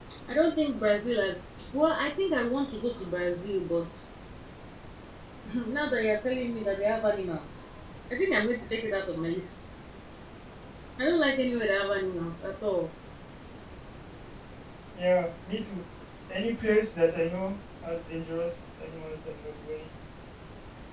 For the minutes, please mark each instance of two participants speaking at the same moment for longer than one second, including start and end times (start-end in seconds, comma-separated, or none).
none